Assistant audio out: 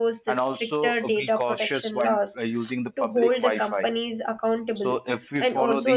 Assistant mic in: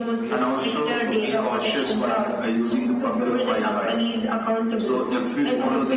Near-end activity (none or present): present